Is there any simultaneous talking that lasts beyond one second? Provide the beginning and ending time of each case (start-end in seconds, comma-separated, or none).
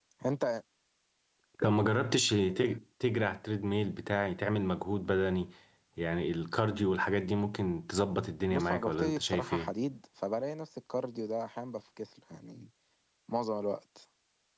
8.5-9.7